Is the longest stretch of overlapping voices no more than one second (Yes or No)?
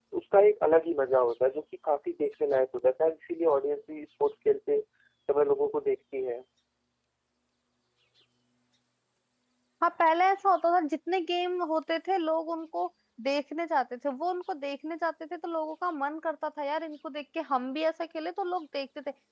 Yes